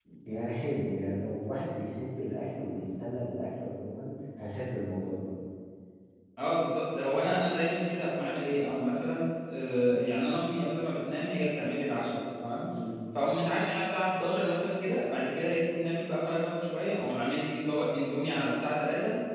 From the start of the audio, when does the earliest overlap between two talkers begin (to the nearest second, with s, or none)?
none